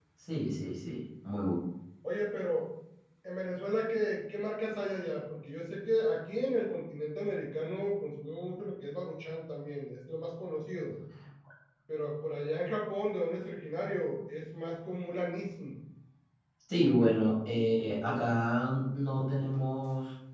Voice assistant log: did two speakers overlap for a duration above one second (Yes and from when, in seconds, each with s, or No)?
No